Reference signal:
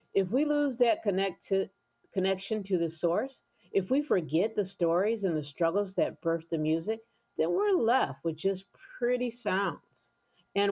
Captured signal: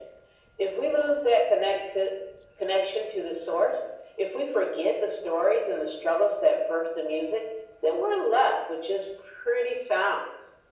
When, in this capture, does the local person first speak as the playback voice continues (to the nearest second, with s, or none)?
none